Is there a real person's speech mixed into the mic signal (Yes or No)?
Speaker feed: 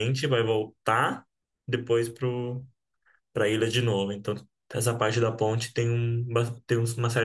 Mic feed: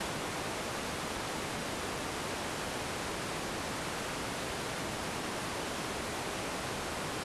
No